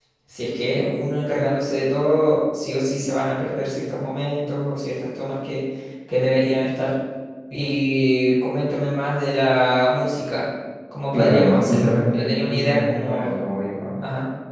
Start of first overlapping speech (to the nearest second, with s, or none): 11 s